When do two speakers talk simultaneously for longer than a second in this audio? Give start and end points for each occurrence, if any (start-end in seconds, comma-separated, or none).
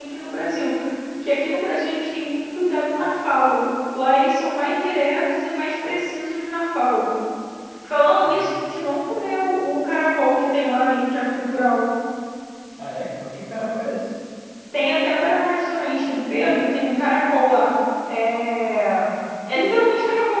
none